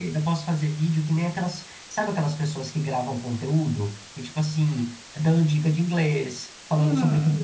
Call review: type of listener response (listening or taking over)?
taking over